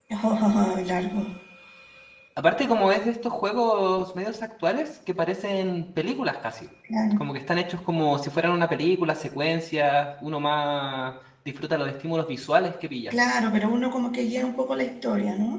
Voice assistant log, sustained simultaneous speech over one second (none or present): none